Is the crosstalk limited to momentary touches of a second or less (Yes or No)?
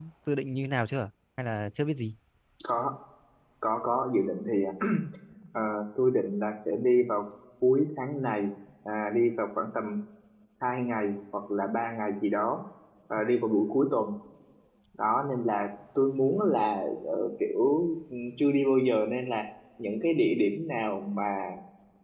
Yes